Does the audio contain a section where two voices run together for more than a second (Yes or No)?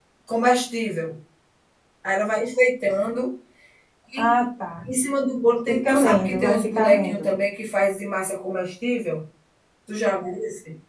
Yes